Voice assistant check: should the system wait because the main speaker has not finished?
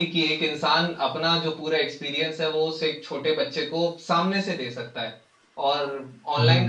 Yes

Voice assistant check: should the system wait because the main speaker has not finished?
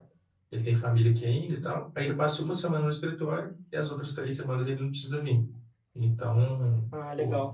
Yes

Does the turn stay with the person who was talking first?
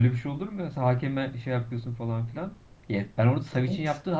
Yes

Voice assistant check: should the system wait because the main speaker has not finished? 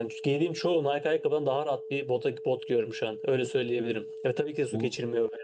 Yes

